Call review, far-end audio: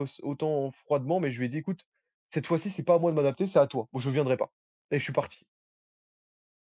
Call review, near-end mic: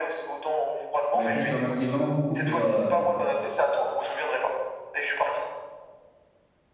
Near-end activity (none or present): present